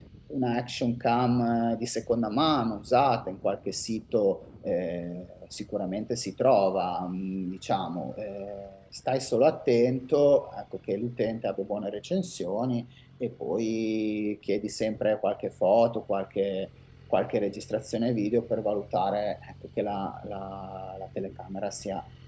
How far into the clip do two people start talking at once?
none

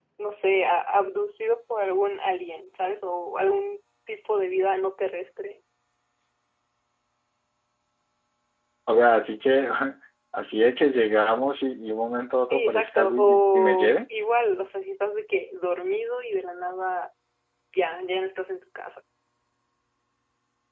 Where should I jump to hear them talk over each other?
13 s

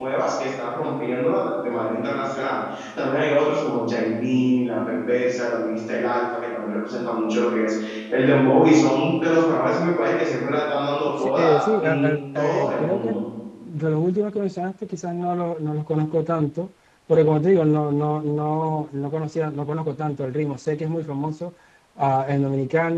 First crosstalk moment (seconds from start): 11 s

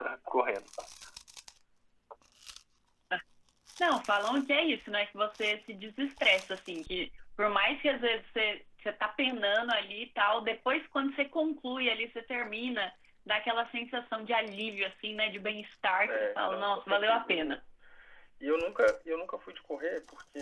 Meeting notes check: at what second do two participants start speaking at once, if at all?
16 s

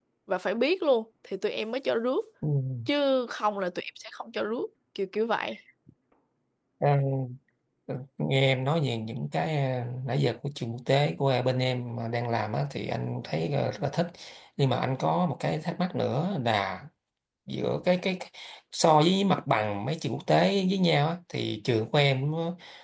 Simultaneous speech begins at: none

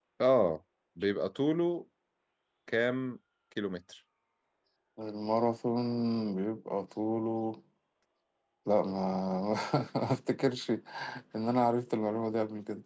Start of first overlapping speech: none

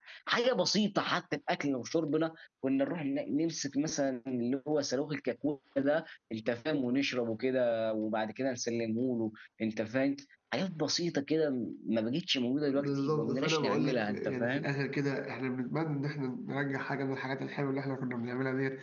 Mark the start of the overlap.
13 s

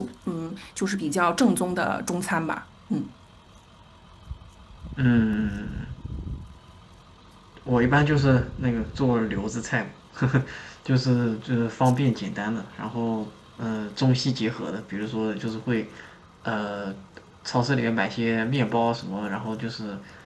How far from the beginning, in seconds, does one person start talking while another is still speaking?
none

